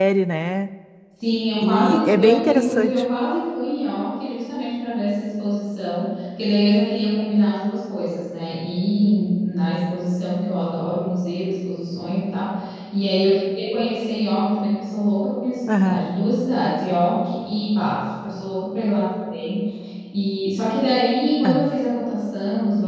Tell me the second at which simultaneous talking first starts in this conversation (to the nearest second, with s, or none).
2 s